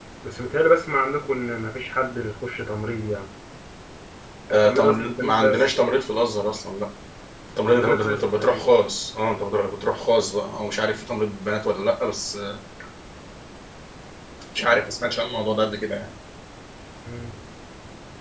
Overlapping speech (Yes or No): Yes